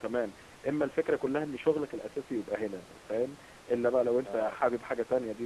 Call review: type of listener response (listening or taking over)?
listening